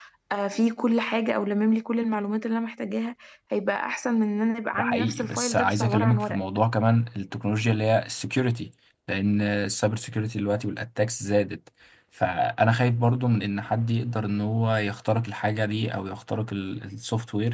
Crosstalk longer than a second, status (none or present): present